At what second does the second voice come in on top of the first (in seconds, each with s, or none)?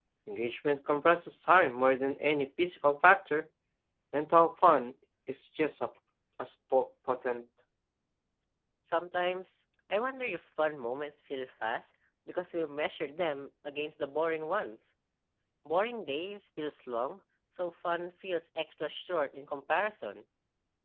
none